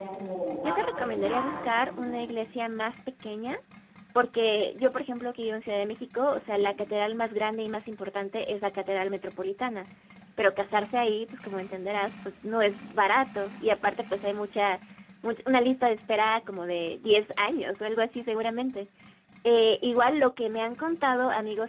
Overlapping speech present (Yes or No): Yes